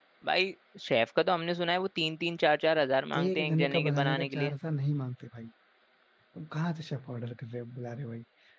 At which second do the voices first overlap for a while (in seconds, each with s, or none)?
3.1 s